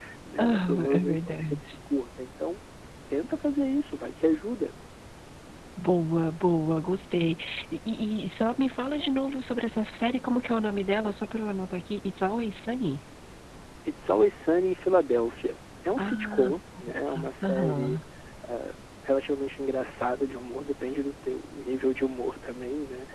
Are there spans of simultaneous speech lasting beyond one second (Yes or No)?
Yes